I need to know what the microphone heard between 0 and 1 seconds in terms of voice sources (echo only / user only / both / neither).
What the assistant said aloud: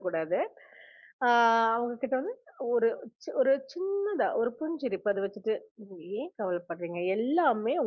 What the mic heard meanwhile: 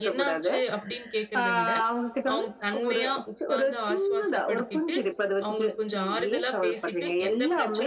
both